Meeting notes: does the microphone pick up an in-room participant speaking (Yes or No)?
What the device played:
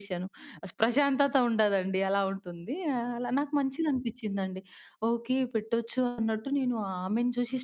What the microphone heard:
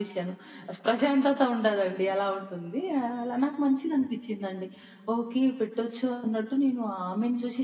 No